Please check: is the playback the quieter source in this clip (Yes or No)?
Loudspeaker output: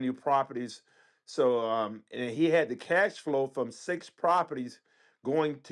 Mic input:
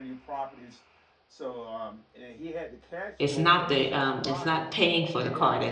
Yes